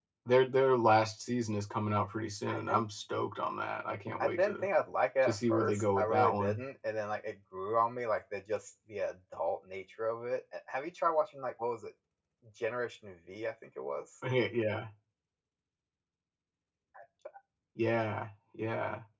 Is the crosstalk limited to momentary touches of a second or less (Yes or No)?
No